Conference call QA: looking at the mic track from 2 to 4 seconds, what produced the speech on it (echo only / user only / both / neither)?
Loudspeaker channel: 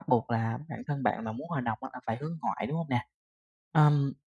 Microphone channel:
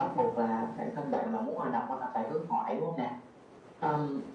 echo only